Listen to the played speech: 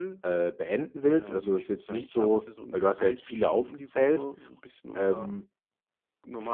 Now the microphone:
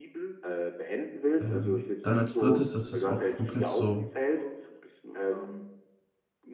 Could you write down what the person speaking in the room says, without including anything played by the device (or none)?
Ähm, dann als 3., das ist auch komplett so